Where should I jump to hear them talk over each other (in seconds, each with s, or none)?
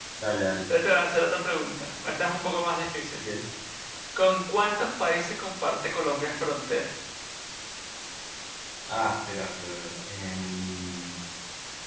none